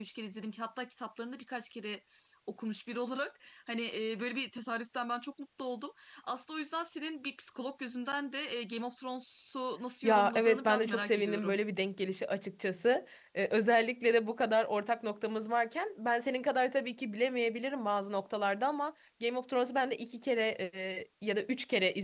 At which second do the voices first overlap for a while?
10.0 s

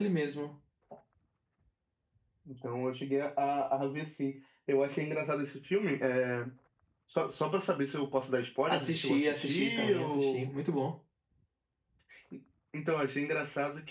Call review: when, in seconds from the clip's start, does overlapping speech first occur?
8.7 s

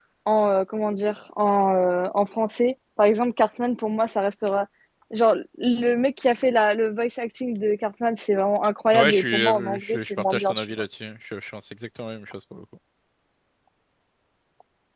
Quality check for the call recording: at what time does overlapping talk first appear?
8.9 s

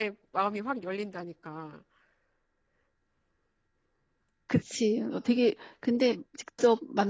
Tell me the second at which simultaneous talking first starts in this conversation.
none

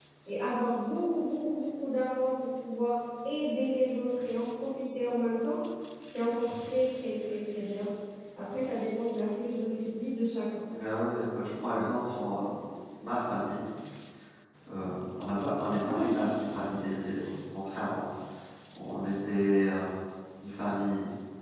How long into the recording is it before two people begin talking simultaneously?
none

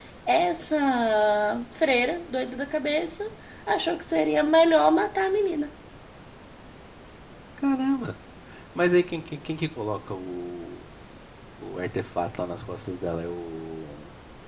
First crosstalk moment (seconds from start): none

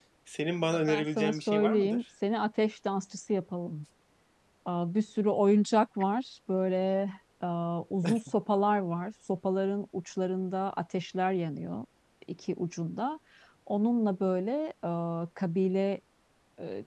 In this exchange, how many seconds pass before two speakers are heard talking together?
0.7 s

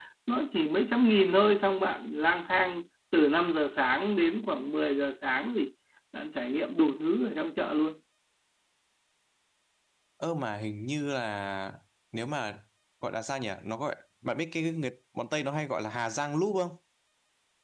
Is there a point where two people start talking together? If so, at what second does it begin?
none

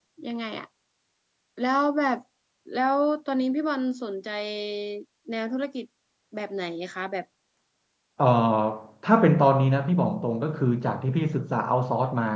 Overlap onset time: none

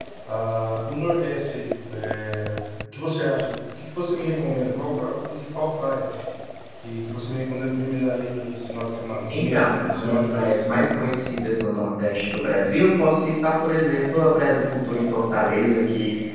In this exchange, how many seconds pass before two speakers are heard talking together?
9.3 s

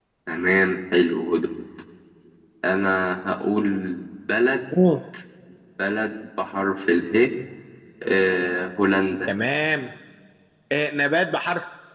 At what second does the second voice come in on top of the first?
none

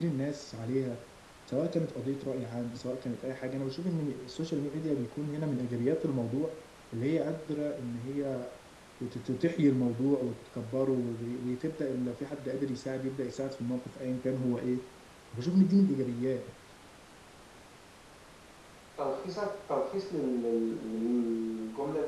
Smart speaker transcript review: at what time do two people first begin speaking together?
none

